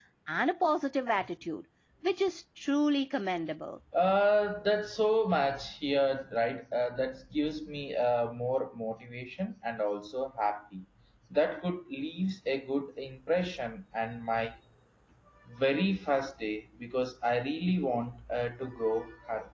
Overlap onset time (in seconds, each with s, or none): none